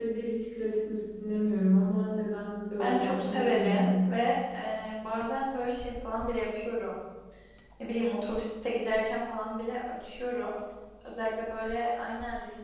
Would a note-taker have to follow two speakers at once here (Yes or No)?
Yes